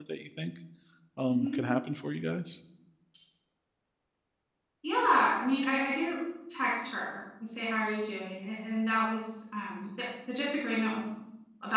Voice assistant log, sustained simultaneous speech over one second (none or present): none